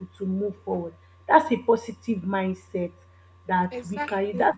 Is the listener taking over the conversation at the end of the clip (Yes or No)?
No